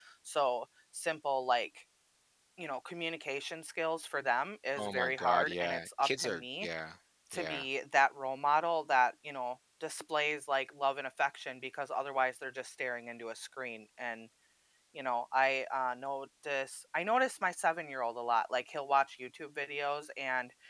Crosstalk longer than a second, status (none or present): present